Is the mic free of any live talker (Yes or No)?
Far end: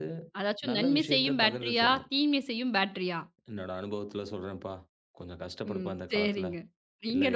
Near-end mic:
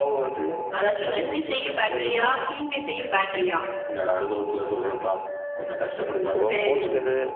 No